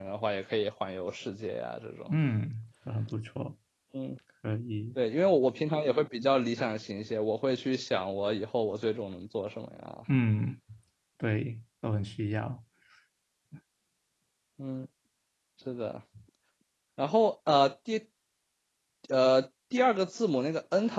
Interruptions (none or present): none